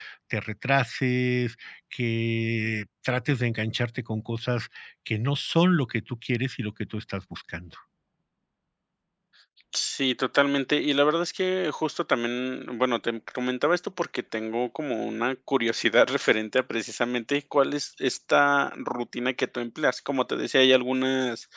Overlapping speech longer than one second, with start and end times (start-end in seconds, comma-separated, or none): none